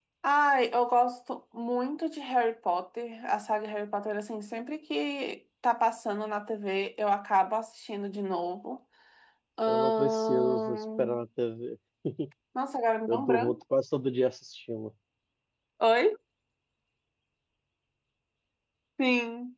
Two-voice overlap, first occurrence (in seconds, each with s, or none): 9.7 s